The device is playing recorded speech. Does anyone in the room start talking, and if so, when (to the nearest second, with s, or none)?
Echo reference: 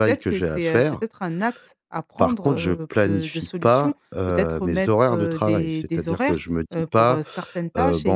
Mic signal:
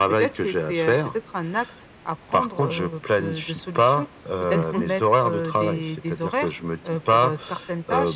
5 s